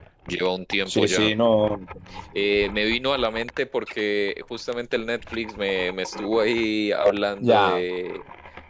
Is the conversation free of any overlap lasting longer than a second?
Yes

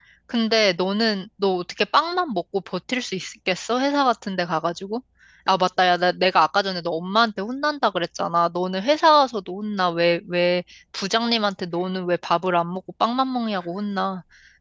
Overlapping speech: No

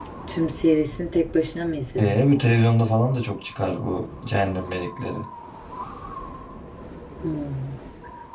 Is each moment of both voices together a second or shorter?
Yes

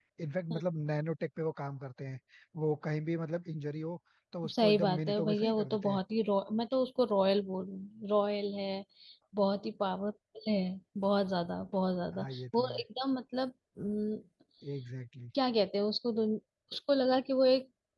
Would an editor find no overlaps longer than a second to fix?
No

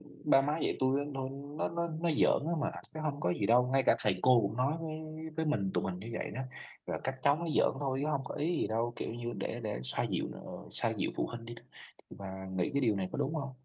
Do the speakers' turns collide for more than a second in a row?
No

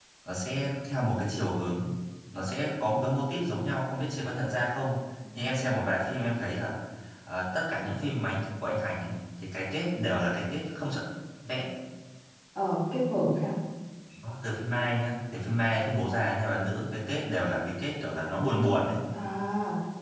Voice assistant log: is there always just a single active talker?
Yes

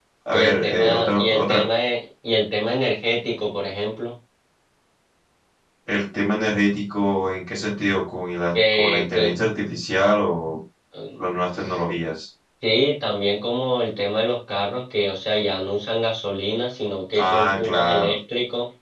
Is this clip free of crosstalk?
No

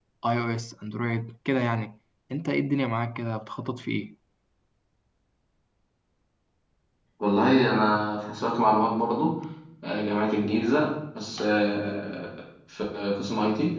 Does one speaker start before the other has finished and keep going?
No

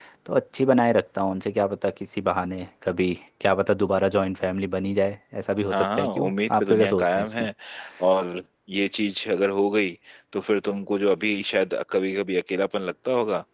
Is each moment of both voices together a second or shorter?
No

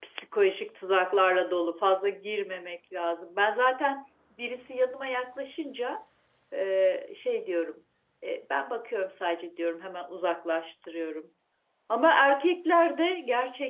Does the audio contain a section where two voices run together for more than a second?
No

